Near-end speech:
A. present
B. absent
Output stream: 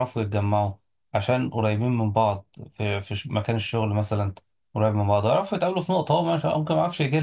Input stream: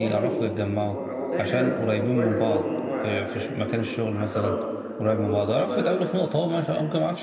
A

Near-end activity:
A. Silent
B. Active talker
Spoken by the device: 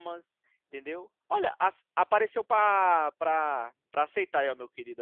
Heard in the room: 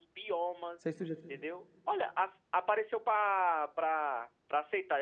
B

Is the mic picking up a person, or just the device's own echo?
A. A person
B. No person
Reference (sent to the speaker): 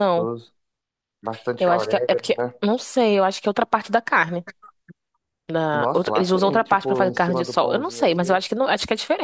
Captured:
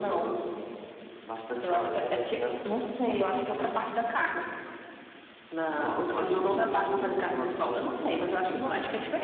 B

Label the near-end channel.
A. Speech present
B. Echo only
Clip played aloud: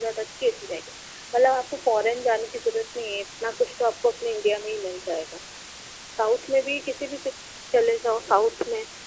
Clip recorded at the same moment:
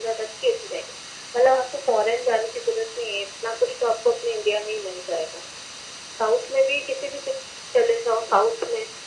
B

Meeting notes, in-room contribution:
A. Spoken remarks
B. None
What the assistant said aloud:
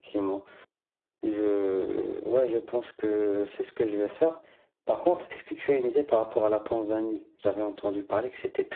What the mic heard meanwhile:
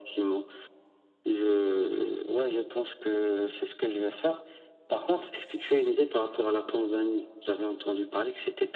B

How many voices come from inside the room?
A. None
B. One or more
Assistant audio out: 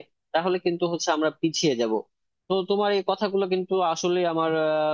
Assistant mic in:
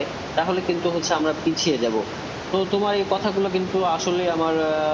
A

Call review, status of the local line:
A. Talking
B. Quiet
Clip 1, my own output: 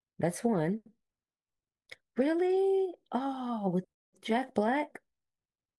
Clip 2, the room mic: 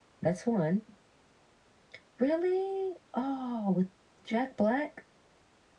B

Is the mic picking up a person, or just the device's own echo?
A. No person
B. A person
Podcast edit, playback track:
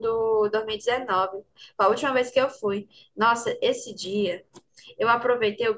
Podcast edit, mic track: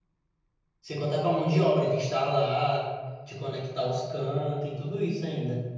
B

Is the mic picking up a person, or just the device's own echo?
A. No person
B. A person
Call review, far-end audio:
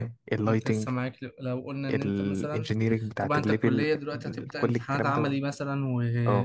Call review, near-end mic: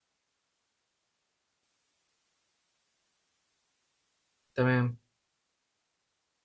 B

